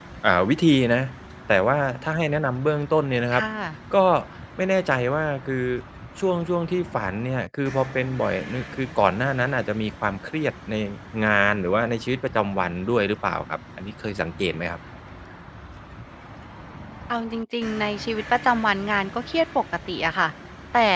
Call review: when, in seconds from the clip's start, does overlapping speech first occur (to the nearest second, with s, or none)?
none